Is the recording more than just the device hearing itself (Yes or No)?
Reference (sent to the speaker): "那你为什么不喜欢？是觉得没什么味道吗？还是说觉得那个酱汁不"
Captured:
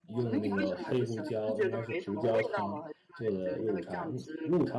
Yes